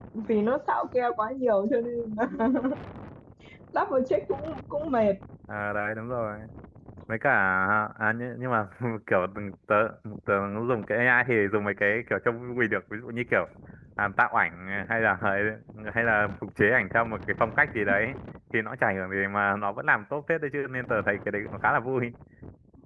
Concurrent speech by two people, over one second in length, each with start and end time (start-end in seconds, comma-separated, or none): none